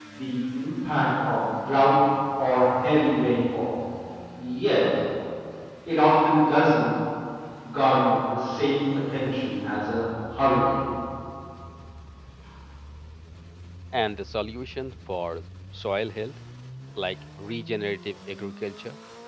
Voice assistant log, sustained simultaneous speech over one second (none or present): none